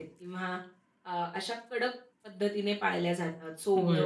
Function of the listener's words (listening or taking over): taking over